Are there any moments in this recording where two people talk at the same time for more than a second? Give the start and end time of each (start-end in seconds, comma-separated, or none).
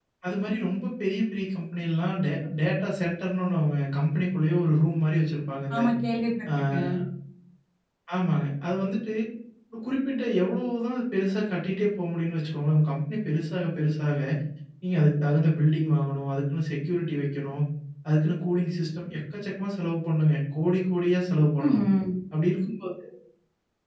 none